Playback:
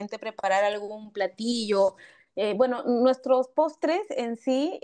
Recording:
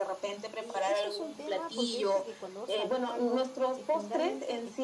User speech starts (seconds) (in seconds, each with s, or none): 0.6 s